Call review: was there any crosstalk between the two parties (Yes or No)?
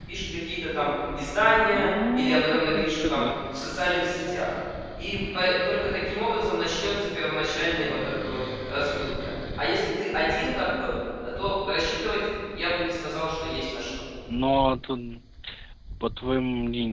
Yes